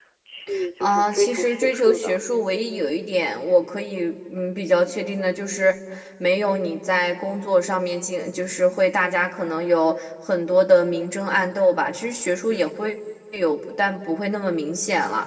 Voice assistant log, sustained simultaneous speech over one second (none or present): present